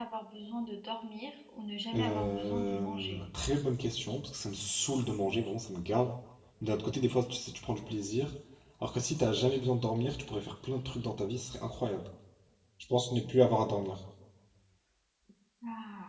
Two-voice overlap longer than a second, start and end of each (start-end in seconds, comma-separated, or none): 1.9-3.1